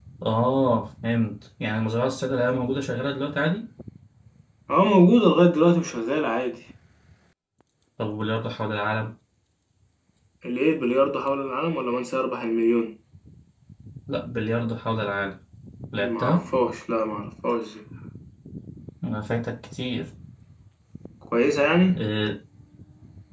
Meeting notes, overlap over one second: none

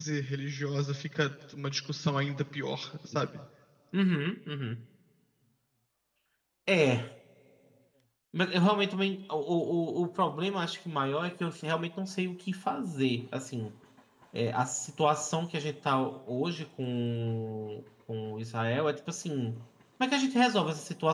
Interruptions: none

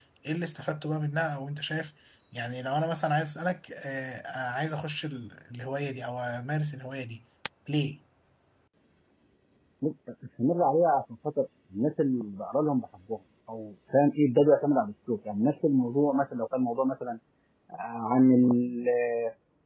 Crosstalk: none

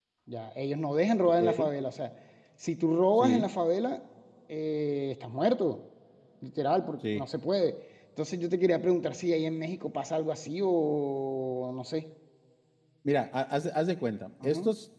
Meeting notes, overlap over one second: none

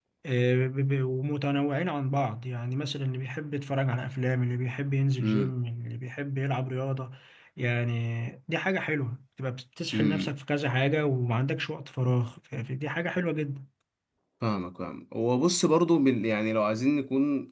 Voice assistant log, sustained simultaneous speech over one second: none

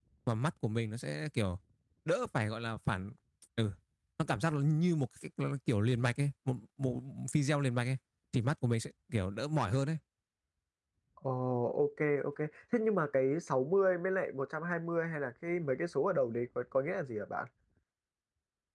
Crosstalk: none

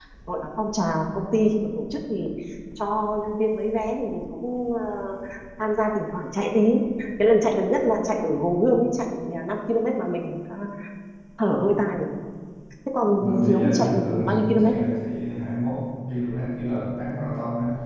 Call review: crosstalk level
present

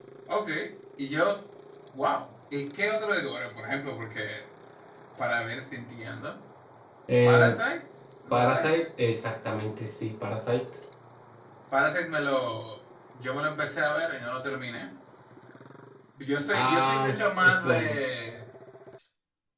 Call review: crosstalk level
present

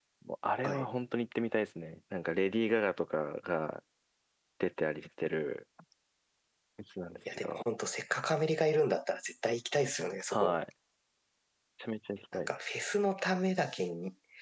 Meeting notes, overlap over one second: none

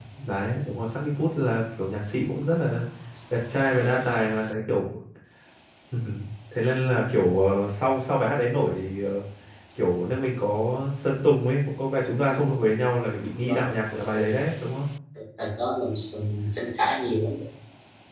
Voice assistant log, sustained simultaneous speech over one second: none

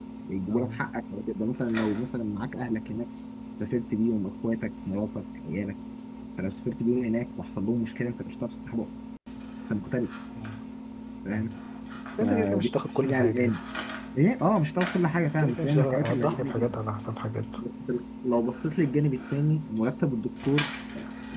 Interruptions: present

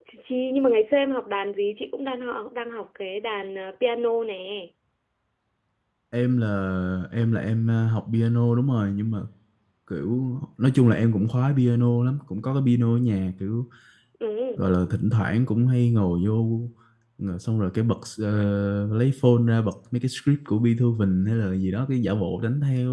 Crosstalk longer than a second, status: none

